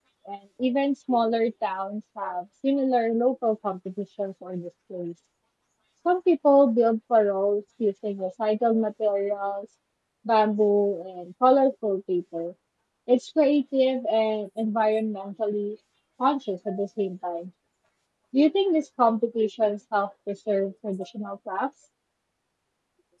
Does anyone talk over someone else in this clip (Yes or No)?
No